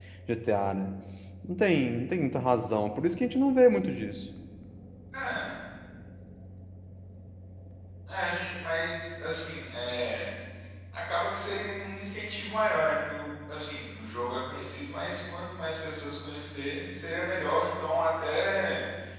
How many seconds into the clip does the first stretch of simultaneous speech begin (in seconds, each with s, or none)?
none